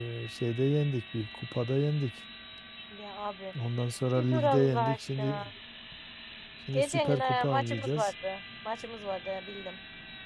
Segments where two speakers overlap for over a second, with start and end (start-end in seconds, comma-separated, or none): 4.2-5.5, 6.7-8.1